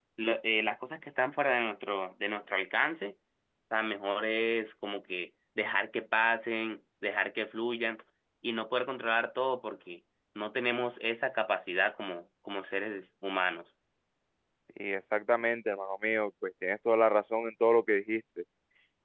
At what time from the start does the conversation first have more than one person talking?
none

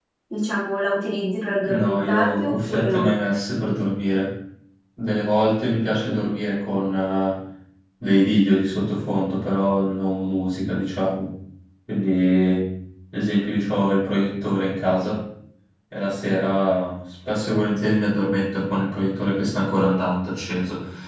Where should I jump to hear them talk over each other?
1.6 s

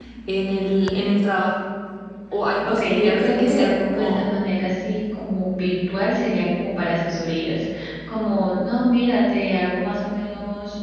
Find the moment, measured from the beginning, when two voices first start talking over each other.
2.6 s

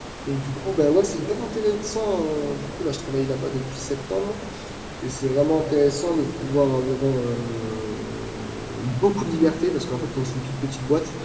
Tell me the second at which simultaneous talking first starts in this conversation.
none

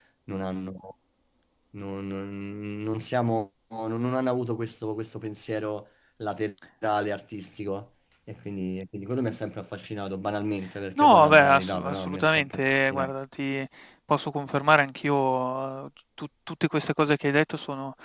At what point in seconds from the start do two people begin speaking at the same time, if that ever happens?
11.0 s

